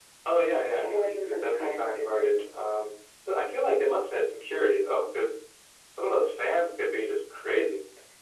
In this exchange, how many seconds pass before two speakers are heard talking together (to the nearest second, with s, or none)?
1 s